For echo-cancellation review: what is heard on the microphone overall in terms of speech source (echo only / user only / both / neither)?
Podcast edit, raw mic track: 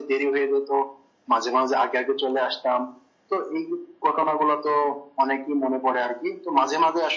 echo only